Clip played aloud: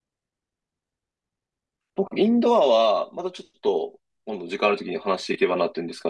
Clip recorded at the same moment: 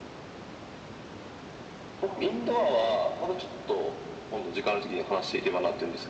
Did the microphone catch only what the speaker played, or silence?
Yes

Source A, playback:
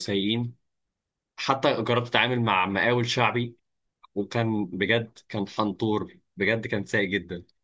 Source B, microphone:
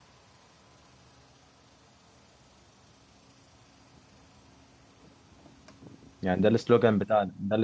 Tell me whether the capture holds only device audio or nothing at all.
No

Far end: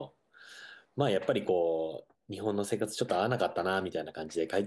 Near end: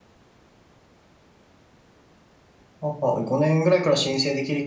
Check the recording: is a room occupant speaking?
Yes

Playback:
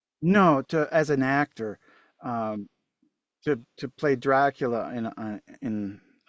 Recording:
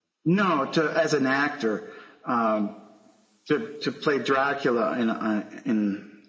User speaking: No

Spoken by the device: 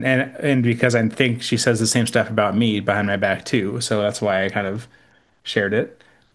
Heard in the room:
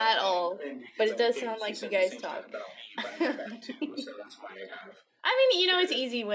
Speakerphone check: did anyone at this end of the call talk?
Yes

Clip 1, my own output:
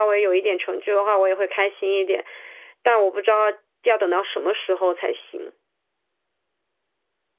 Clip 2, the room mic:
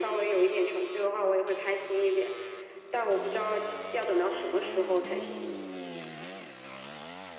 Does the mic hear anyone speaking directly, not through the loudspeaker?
No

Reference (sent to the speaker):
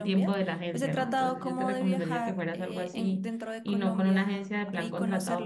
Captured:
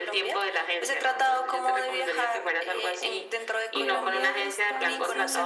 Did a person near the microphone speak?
Yes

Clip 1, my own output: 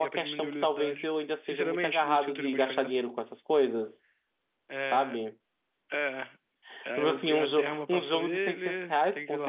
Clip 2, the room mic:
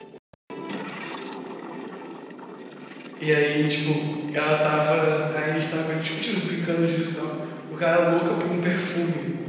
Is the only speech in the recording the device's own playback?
No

